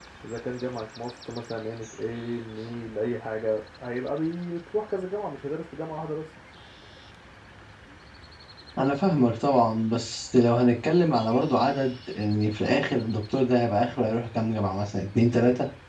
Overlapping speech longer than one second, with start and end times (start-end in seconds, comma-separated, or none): none